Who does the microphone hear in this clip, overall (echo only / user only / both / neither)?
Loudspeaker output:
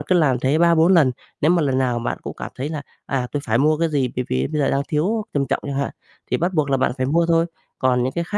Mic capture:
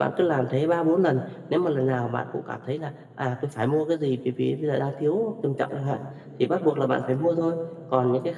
echo only